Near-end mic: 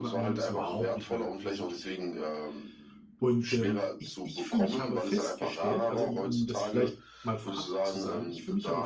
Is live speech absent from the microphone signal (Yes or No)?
No